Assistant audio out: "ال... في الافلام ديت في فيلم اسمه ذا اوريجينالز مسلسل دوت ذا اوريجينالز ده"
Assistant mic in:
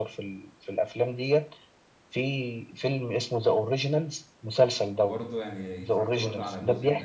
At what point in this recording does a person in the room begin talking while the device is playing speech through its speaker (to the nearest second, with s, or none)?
5 s